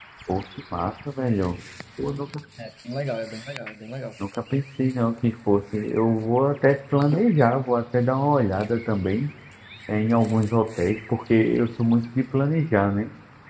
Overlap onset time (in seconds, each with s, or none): none